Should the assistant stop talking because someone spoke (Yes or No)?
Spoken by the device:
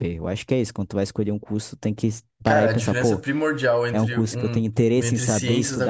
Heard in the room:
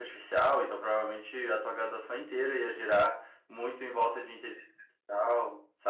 Yes